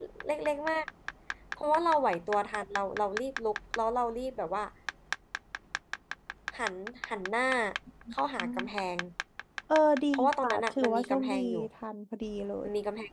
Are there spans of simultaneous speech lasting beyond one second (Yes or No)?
Yes